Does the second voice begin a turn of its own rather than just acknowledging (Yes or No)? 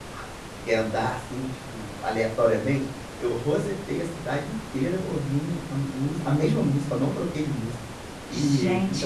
Yes